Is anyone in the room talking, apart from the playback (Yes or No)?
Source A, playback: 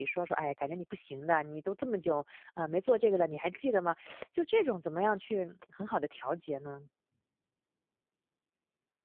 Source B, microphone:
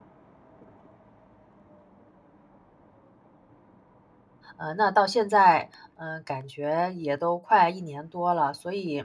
Yes